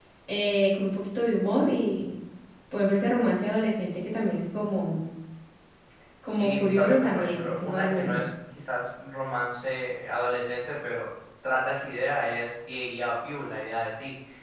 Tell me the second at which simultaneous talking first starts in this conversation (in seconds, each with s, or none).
6.3 s